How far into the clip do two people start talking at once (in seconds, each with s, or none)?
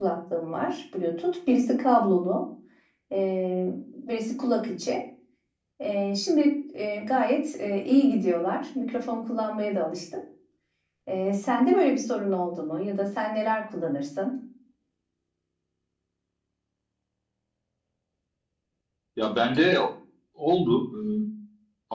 none